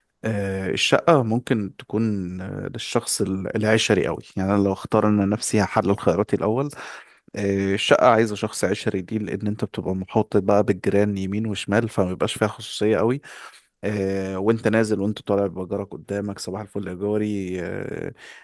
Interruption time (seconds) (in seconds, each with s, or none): none